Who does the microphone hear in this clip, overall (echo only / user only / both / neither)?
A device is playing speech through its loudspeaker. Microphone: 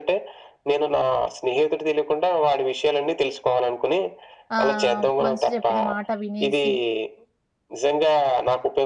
both